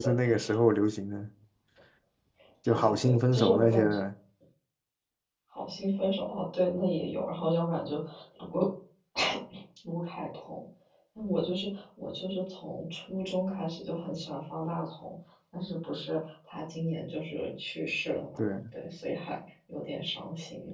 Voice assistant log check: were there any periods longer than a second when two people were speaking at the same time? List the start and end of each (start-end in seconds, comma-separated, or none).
2.7-4.0